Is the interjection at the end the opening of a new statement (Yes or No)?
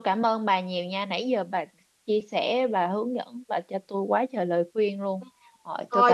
Yes